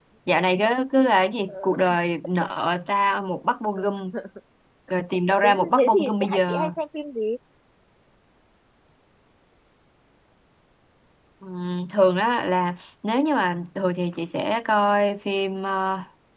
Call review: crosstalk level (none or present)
present